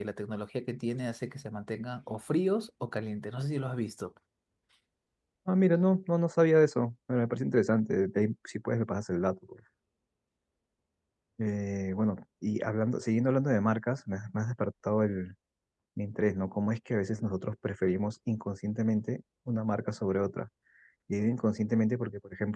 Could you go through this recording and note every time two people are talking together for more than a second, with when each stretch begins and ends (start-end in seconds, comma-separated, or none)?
none